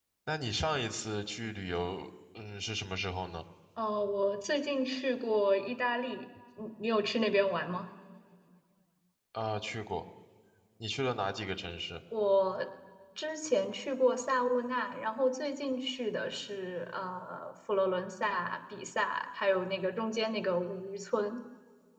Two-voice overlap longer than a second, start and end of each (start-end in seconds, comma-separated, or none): none